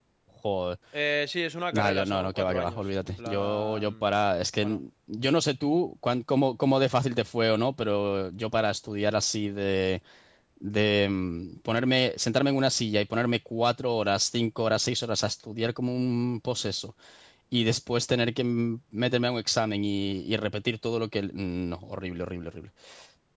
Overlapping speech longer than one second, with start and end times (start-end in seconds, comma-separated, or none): 1.7-4.0